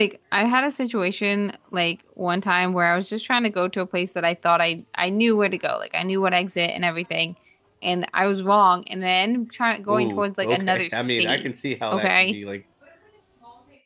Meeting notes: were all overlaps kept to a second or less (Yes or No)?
No